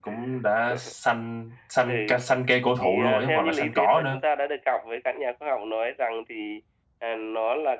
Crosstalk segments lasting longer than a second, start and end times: 2.8-4.2

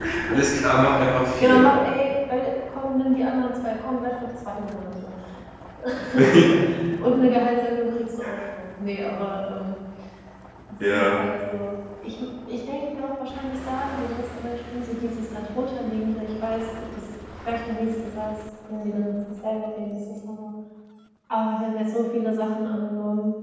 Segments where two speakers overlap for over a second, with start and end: none

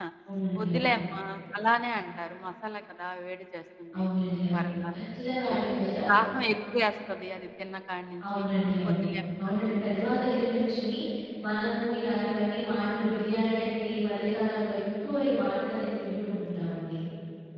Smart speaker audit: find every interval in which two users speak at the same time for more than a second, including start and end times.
none

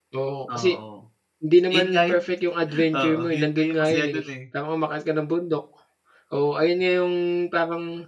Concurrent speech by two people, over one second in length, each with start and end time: 3.0-4.2

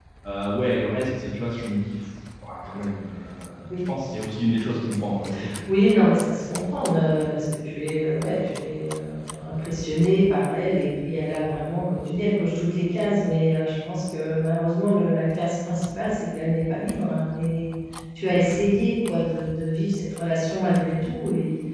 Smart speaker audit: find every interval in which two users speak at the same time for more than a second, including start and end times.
none

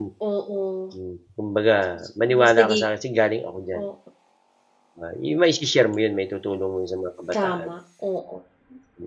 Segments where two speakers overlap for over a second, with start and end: none

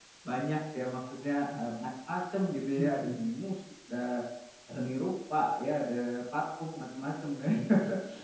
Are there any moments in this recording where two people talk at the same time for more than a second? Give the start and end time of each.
none

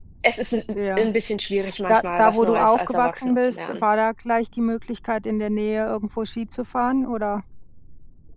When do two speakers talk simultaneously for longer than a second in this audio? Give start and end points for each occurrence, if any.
1.9-3.8

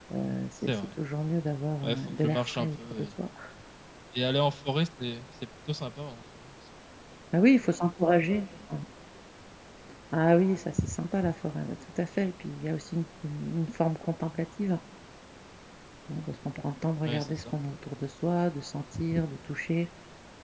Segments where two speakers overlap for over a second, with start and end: 1.8-3.1

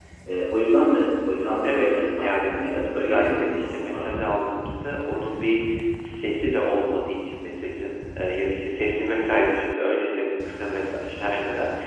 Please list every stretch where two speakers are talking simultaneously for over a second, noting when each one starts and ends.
1.6-4.2

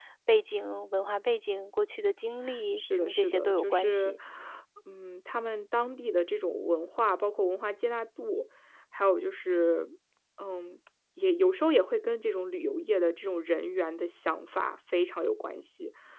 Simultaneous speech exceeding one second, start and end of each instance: 2.8-4.2

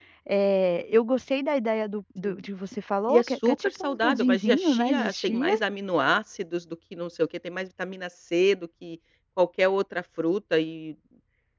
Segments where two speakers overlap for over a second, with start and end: 3.1-5.5

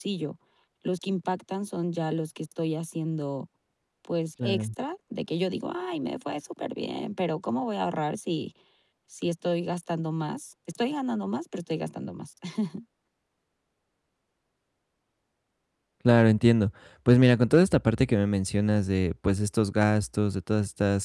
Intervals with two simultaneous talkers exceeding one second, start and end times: none

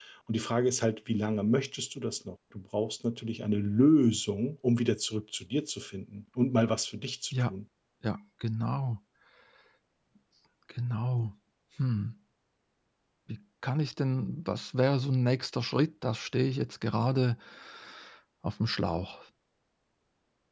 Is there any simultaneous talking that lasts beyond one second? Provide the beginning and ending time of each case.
none

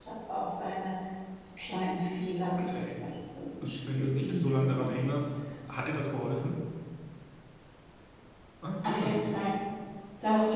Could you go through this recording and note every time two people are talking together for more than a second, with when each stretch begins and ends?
3.6-4.8

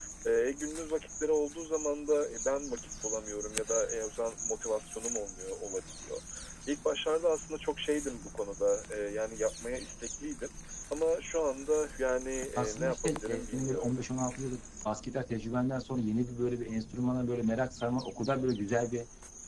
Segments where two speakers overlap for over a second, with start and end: 12.6-14.0

